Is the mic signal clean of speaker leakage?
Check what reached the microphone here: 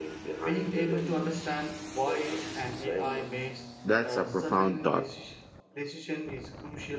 No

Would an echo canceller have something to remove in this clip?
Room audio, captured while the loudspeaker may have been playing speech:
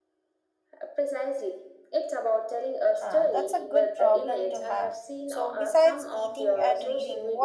Yes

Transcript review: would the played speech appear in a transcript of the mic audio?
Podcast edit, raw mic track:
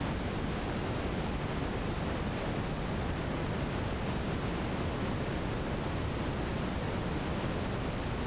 No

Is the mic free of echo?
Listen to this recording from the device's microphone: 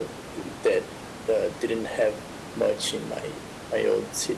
No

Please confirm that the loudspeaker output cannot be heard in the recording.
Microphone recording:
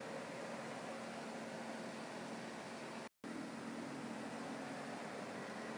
Yes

